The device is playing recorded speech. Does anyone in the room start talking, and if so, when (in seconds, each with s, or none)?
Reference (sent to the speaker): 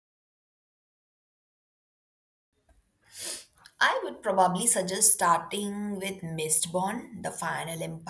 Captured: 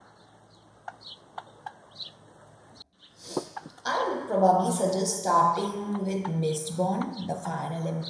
none